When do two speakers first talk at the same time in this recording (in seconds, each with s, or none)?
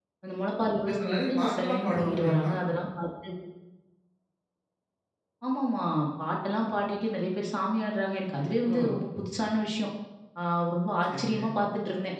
0.8 s